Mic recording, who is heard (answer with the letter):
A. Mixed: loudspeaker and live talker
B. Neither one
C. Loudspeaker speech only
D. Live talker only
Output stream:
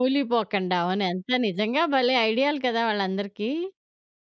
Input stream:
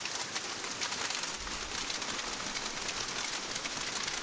B